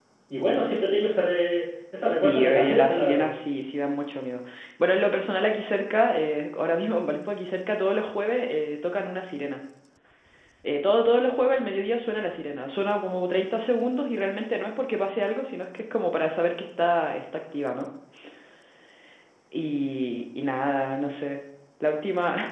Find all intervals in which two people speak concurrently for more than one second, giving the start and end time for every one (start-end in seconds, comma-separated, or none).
2.1-3.3